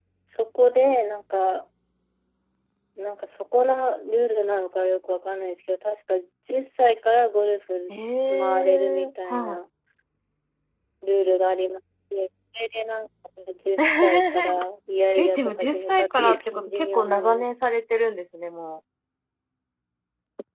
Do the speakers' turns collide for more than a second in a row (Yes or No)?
Yes